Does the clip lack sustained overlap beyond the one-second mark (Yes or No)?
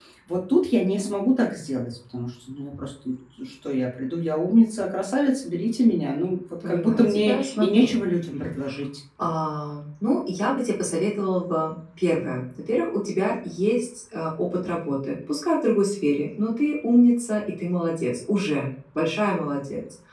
No